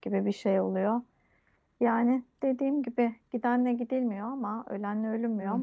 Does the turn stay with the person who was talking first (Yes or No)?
Yes